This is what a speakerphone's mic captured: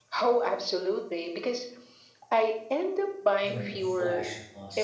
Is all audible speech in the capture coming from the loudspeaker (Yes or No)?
No